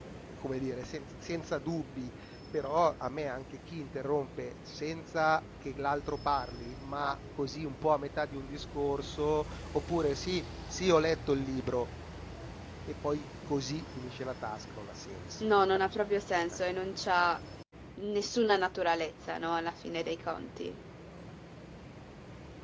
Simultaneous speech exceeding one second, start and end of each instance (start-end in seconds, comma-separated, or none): none